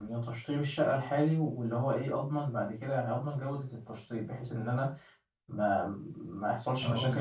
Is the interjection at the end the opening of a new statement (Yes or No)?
No